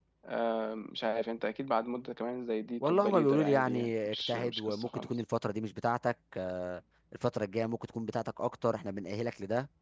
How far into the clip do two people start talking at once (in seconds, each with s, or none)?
2.8 s